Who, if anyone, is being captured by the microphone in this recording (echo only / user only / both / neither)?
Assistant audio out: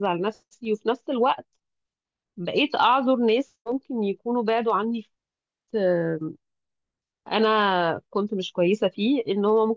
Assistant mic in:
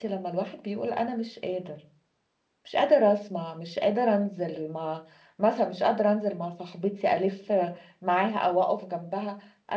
user only